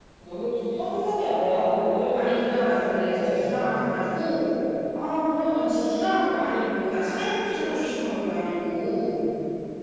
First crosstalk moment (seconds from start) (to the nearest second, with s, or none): 2 s